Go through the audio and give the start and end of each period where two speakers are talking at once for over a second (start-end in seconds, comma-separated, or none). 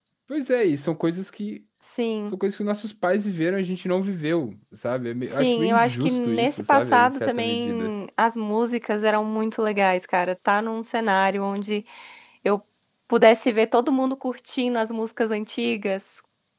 5.3-7.9